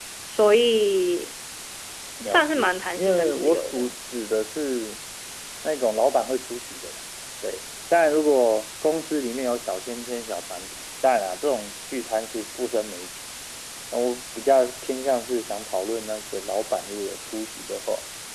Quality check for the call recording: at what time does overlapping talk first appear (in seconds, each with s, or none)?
2.3 s